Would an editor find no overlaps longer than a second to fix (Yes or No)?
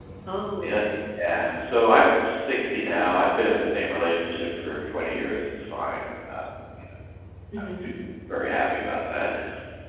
Yes